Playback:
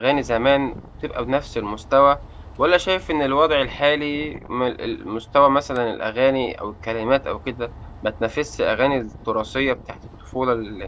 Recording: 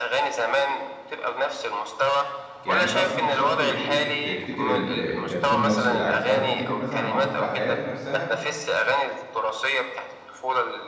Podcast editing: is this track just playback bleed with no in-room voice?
No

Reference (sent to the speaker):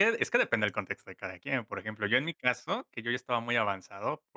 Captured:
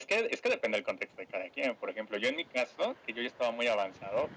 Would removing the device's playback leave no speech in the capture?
Yes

